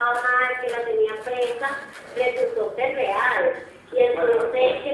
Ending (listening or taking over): taking over